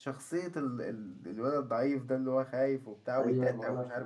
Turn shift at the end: Yes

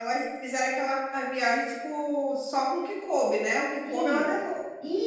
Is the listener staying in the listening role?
No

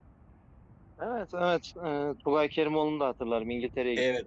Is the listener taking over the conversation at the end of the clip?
Yes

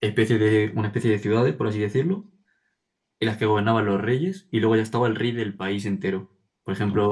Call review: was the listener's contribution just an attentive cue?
Yes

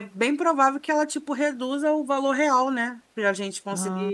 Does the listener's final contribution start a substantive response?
No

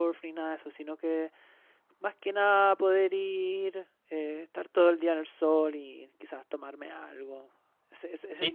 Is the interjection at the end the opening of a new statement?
Yes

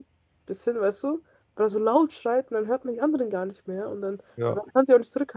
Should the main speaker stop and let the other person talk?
No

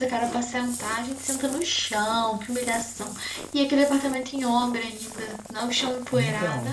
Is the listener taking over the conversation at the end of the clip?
Yes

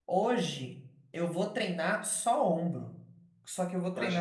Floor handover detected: No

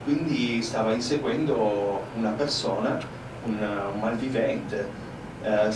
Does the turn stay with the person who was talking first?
Yes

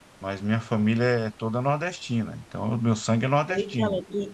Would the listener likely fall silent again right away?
No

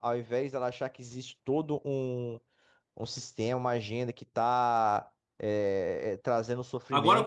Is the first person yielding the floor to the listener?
Yes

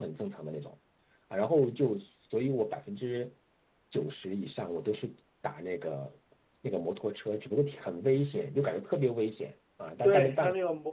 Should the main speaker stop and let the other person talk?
Yes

